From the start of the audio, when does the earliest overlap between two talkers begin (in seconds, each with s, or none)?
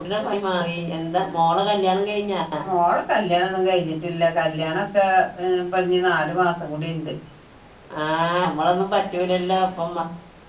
none